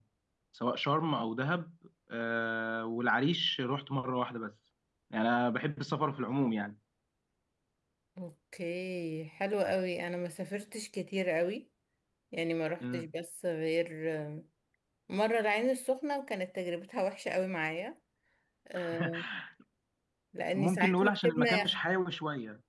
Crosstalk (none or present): present